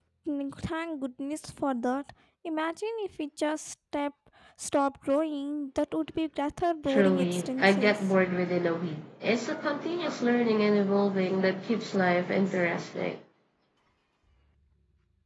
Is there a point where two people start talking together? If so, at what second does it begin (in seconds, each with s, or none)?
6.9 s